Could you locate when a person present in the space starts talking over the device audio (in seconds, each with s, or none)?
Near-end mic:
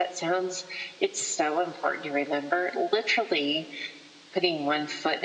none